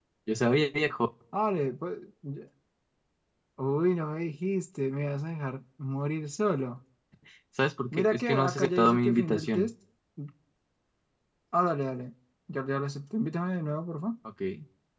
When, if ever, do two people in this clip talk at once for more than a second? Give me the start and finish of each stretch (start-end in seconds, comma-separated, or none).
8.0-9.7